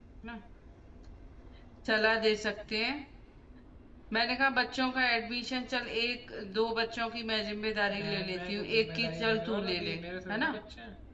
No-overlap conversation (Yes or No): No